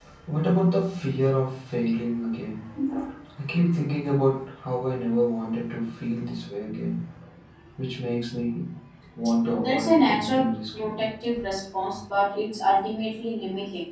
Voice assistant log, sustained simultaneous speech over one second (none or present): present